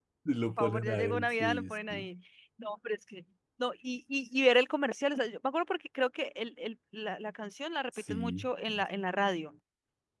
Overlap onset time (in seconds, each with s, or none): 0.6 s